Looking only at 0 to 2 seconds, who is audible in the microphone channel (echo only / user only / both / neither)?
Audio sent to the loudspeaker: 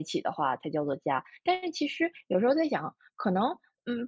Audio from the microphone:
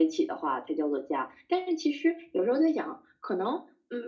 echo only